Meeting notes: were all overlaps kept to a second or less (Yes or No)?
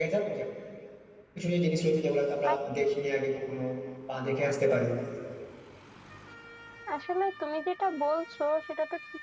Yes